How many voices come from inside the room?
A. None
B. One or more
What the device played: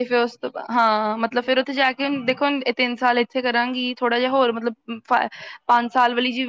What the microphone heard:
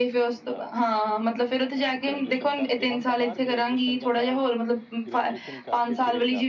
B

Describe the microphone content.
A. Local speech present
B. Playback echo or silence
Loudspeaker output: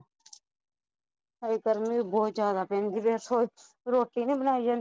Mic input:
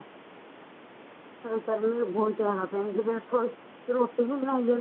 B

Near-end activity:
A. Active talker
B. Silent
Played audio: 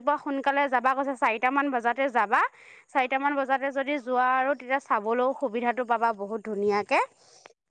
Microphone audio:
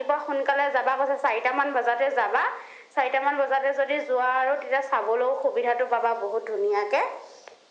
B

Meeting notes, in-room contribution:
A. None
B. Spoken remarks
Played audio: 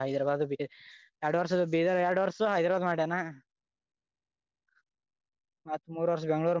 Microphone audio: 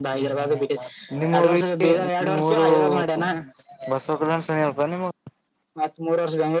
B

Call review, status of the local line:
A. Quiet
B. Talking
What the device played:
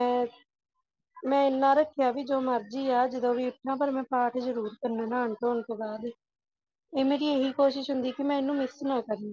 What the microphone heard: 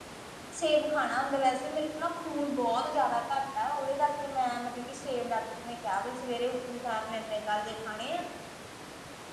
B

